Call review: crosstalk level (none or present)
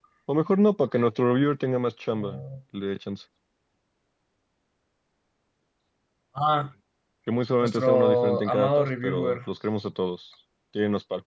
present